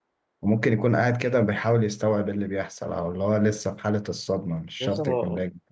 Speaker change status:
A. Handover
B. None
A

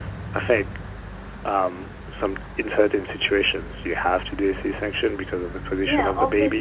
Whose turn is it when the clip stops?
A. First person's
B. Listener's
B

